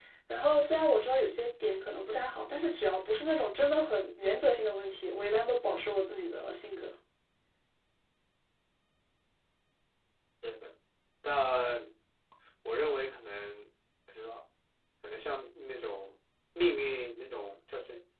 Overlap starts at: none

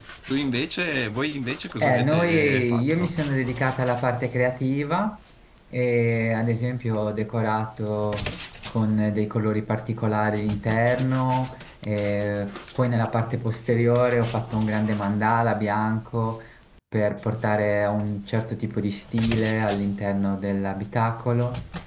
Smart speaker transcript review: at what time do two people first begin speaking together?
2 s

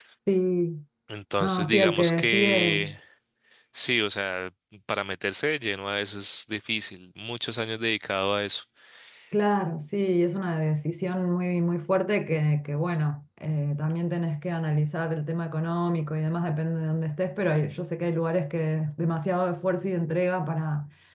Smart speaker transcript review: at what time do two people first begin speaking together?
1 s

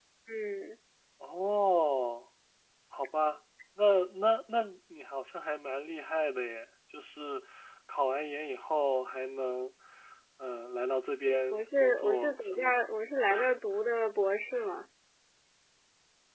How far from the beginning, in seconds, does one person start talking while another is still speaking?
12 s

